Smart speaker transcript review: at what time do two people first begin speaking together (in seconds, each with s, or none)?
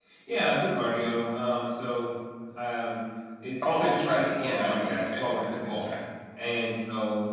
3.6 s